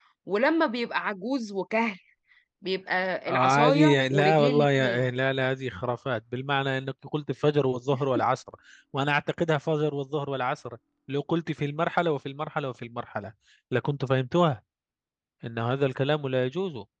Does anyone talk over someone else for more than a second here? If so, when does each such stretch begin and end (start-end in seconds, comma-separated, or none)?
3.3-5.0